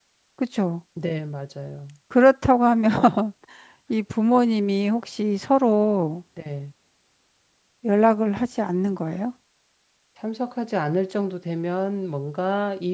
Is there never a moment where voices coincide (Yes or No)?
Yes